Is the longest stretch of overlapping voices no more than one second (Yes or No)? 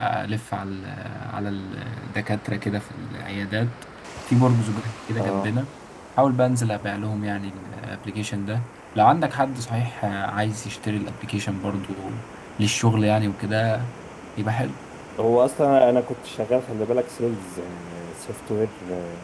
Yes